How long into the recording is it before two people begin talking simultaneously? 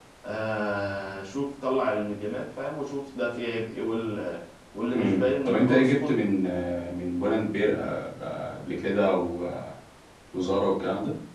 4.9 s

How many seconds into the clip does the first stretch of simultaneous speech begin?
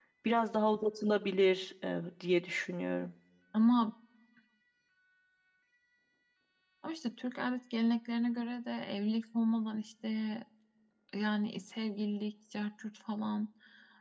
none

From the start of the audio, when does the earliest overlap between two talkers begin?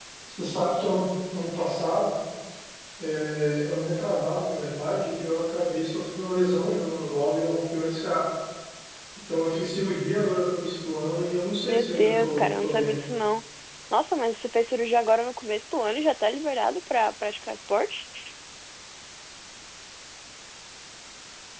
11.6 s

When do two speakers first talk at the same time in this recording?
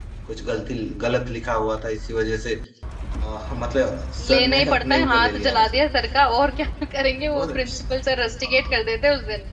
4.3 s

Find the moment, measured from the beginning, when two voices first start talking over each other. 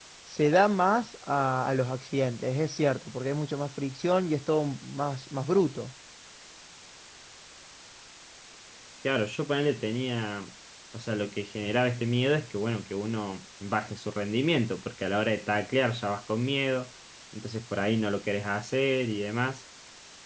none

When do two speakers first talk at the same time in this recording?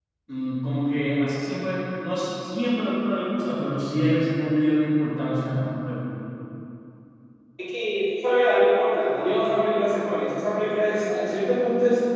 none

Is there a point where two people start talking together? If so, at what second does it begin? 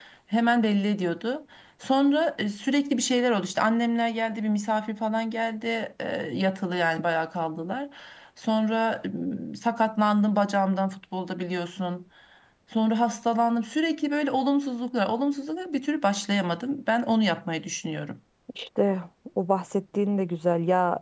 none

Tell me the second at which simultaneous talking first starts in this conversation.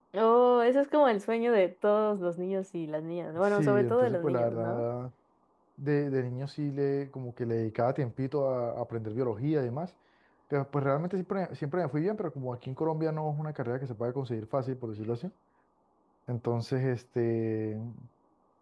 3.5 s

